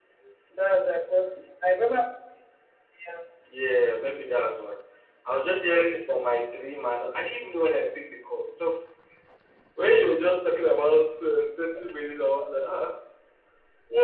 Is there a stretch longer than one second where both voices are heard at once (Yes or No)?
No